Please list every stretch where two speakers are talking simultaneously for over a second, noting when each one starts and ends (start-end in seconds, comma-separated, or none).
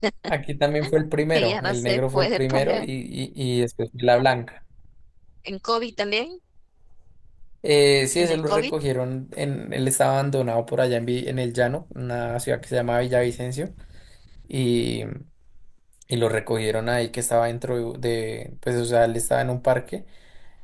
1.3-2.9